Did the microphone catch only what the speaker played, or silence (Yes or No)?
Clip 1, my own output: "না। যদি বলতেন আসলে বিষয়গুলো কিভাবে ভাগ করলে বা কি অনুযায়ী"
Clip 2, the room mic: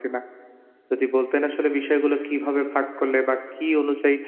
Yes